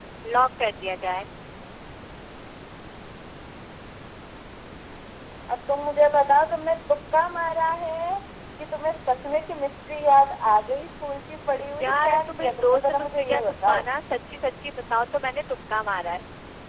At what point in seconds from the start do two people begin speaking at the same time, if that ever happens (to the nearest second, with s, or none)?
12 s